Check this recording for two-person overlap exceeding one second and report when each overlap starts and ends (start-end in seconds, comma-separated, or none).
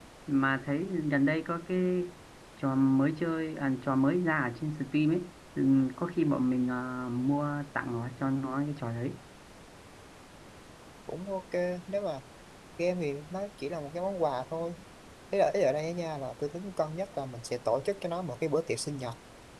none